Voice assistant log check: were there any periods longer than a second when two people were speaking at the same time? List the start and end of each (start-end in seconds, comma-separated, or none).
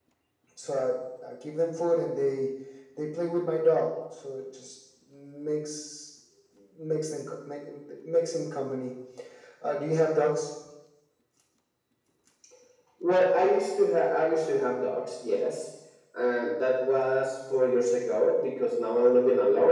none